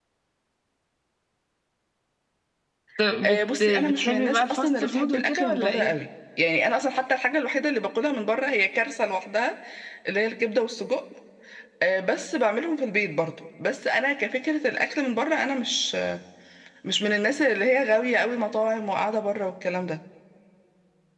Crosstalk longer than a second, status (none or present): present